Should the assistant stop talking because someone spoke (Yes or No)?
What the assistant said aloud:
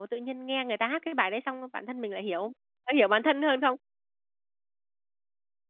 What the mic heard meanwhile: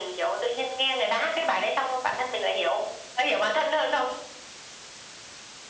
No